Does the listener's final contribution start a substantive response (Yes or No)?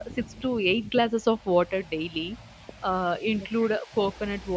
No